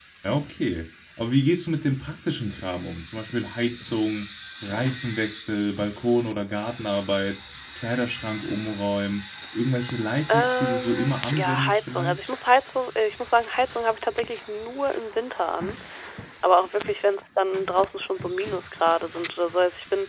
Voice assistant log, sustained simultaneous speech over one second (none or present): present